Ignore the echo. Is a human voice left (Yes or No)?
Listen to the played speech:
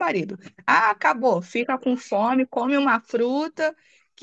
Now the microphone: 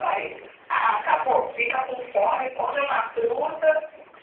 No